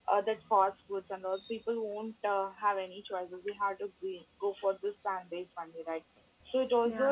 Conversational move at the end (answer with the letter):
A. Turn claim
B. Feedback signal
B